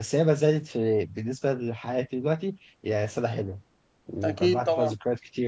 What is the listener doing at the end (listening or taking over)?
listening